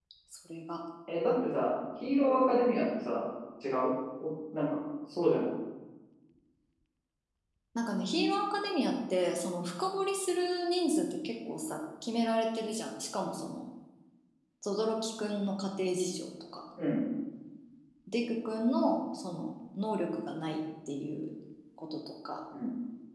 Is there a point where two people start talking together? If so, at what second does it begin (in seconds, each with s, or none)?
none